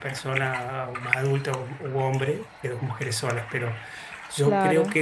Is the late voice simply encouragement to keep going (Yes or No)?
Yes